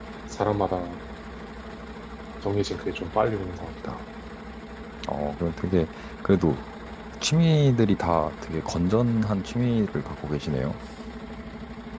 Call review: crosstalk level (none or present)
none